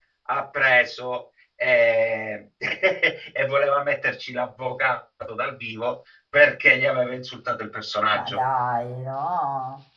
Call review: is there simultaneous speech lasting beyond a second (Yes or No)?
No